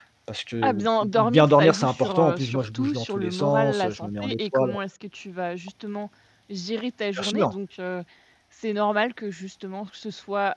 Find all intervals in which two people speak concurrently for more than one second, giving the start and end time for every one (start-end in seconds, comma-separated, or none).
0.6-4.7